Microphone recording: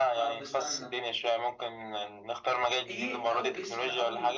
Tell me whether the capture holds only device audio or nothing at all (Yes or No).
No